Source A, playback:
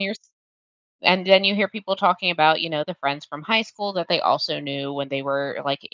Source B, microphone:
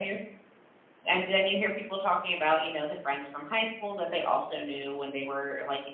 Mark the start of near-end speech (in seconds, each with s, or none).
none